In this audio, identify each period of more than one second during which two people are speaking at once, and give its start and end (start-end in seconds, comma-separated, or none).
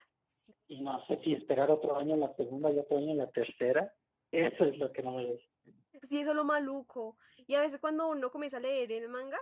none